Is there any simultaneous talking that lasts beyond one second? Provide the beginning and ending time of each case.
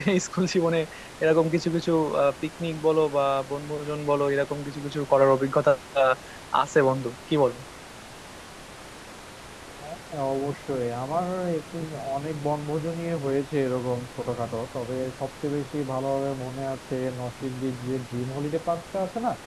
none

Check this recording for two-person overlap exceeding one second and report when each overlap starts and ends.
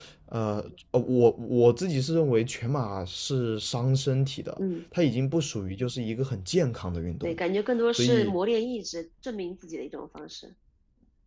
none

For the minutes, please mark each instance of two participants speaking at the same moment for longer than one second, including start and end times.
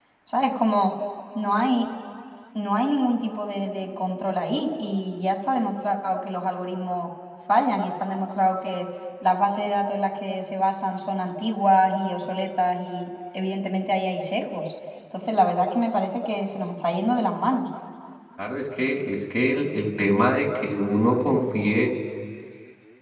none

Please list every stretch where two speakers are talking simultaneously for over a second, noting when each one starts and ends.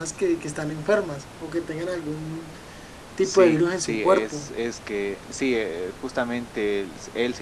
3.2-4.5

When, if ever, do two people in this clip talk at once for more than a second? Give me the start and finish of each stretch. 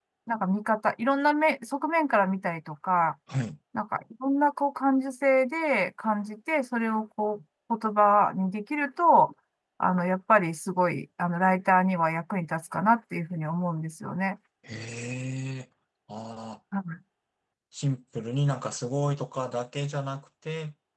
none

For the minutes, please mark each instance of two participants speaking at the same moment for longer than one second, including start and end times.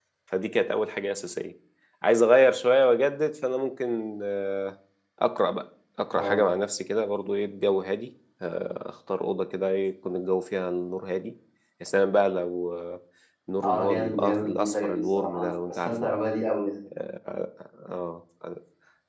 13.6-16.1

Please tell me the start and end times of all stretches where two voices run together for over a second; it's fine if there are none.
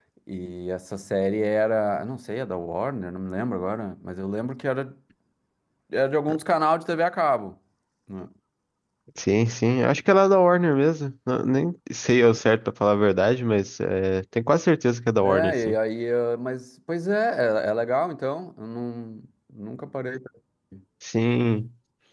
none

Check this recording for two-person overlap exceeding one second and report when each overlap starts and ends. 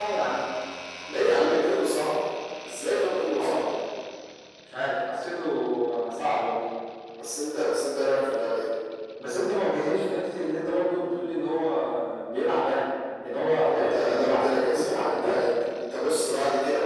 13.6-15.4

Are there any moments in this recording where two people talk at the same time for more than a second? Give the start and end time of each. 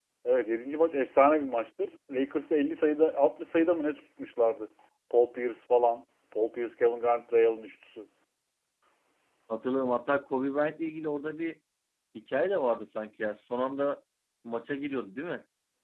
none

